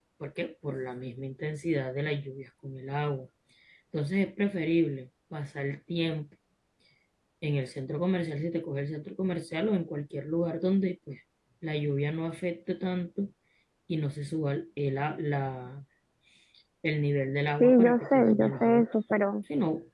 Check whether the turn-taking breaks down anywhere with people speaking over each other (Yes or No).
Yes